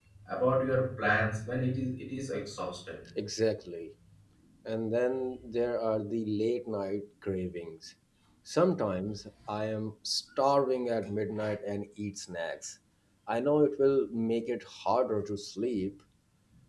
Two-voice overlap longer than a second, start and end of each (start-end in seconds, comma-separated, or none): none